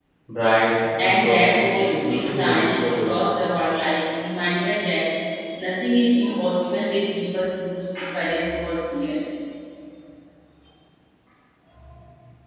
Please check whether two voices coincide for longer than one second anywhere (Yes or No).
Yes